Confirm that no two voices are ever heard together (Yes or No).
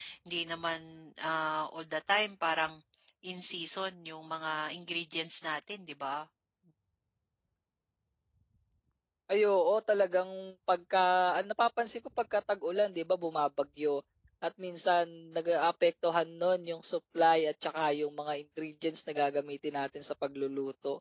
Yes